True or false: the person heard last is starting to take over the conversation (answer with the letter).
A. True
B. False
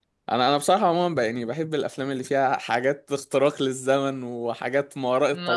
B